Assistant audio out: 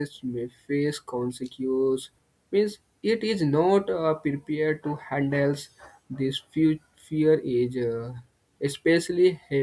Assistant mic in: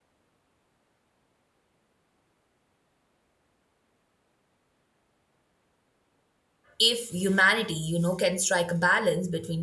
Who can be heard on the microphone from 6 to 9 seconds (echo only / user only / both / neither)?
user only